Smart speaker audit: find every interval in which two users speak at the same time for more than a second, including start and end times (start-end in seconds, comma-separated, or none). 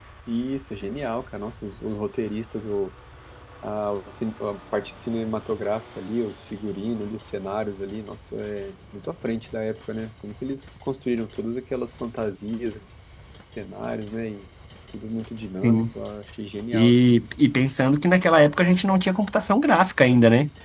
none